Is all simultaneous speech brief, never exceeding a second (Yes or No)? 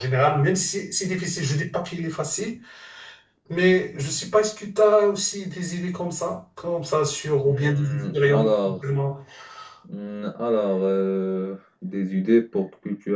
No